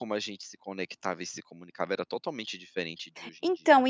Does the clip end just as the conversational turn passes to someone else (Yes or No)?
Yes